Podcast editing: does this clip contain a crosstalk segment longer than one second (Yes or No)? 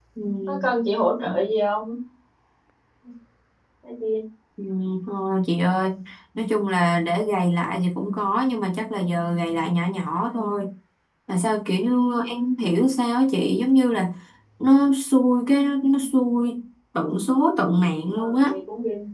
No